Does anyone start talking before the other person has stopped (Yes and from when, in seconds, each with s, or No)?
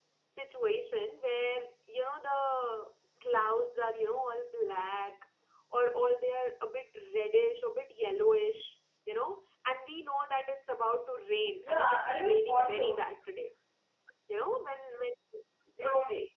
Yes, from 11.6 s